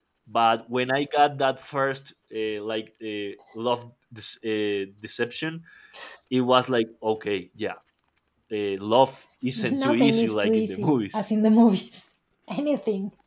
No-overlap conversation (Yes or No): No